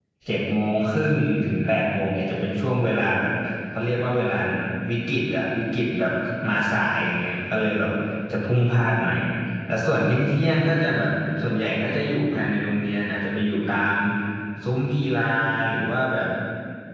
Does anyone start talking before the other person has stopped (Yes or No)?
No